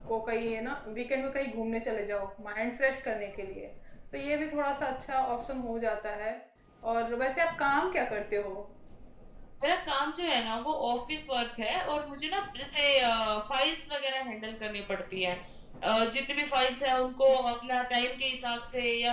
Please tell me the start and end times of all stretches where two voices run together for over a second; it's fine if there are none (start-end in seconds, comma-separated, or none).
none